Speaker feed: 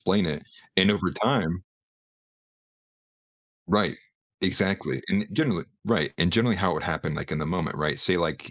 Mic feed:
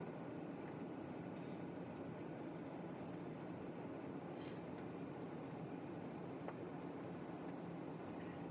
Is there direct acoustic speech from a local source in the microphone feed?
No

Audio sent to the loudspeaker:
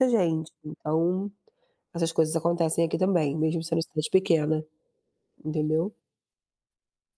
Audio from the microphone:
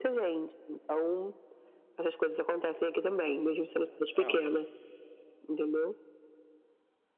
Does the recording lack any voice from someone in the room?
No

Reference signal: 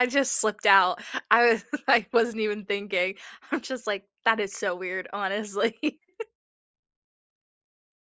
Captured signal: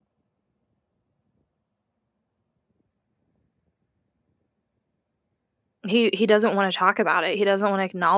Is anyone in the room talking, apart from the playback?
Yes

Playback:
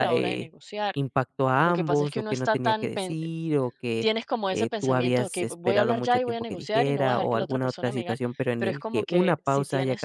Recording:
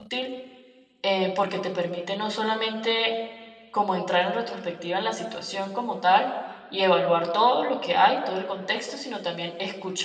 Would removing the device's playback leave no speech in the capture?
No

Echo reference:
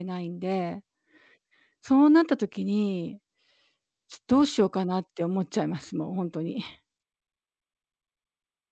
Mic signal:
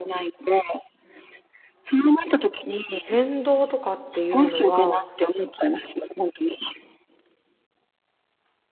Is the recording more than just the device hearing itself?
Yes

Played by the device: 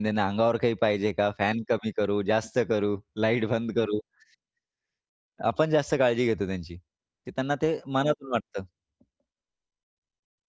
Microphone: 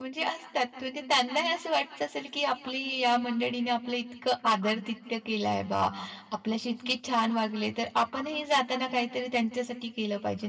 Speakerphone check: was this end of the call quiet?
No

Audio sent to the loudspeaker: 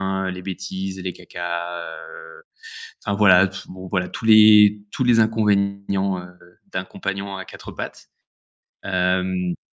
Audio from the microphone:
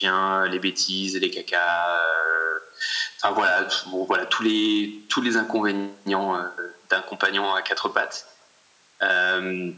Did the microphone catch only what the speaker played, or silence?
Yes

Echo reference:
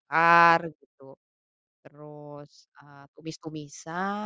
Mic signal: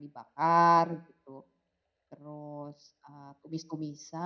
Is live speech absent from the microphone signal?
Yes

